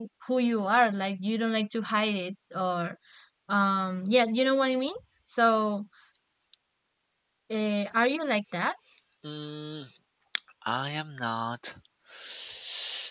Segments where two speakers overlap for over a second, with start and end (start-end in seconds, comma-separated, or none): none